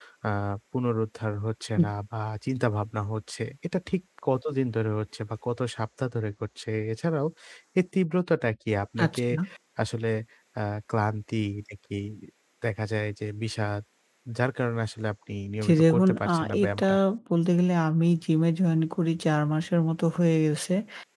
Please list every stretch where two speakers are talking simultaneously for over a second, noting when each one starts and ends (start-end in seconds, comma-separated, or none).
15.6-16.8